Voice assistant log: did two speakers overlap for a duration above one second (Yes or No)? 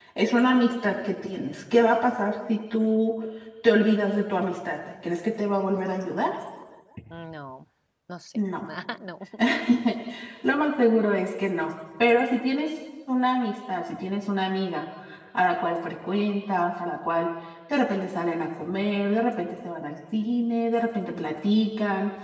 No